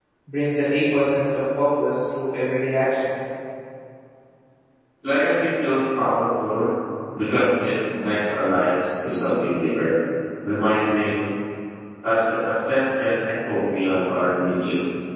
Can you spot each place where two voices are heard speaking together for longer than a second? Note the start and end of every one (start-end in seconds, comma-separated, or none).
none